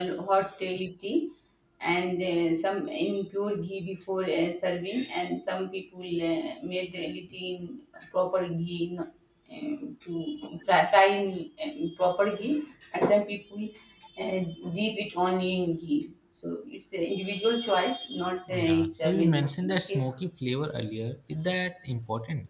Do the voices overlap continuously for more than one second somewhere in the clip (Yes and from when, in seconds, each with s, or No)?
Yes, from 18.5 s